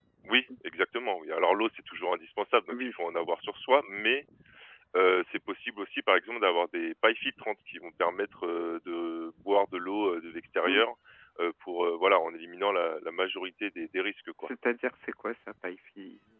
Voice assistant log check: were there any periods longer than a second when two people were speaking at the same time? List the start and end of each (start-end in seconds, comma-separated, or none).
none